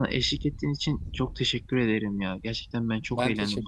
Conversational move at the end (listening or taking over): listening